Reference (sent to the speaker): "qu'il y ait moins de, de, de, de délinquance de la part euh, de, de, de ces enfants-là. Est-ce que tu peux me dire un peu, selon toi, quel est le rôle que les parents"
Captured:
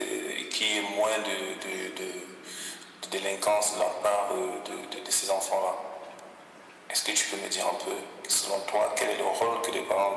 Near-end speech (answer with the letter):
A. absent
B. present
A